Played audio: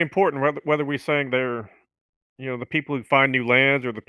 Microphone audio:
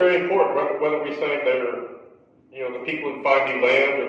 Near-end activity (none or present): none